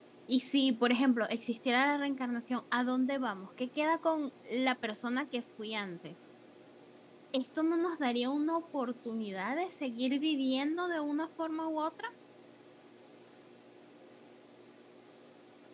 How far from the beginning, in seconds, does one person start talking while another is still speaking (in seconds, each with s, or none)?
none